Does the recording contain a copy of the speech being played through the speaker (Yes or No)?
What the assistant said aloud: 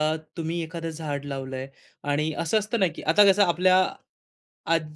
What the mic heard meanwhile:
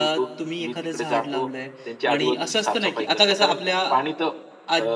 Yes